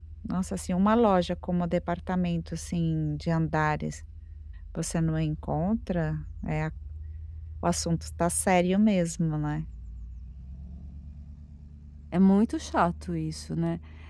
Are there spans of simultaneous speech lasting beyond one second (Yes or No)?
No